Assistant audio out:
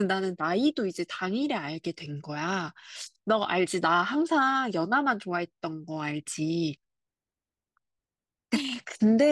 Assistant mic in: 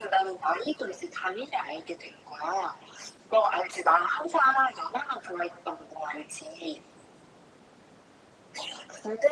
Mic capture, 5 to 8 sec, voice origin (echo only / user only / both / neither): echo only